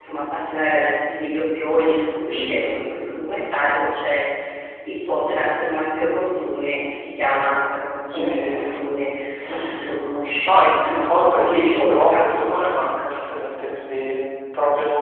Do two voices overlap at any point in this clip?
Yes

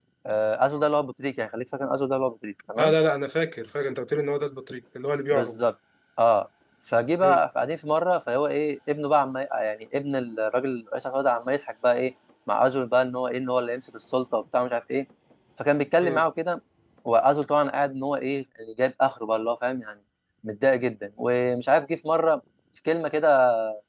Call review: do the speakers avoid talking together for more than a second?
Yes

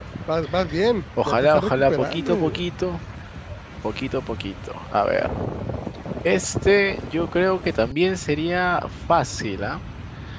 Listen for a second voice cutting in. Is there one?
Yes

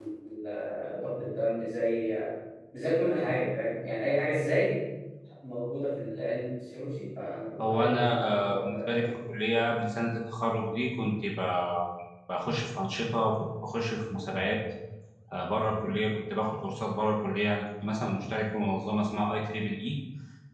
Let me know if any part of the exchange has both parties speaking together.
Yes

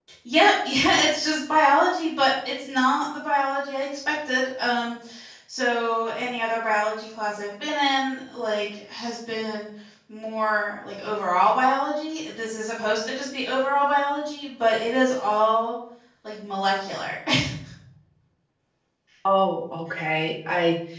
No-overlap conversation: Yes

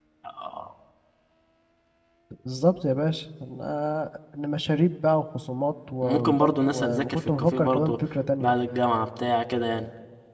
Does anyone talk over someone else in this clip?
Yes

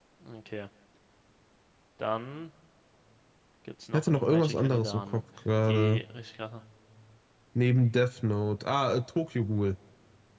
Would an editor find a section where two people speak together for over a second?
Yes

